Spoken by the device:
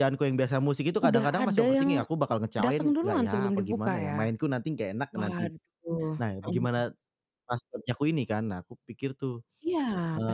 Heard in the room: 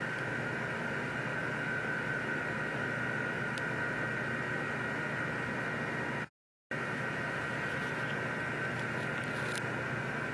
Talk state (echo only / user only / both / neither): neither